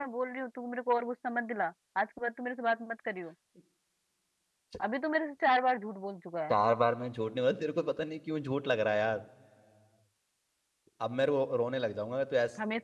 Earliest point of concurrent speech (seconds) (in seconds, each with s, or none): none